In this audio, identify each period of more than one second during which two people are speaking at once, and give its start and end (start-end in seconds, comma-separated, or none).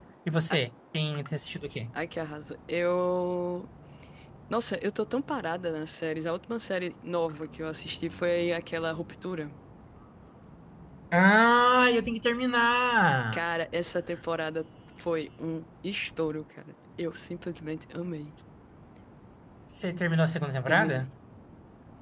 none